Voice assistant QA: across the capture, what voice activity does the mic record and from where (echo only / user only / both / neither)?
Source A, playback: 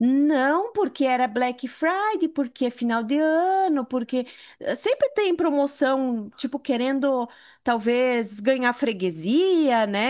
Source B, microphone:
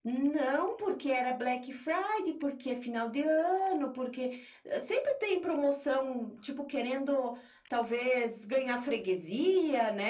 echo only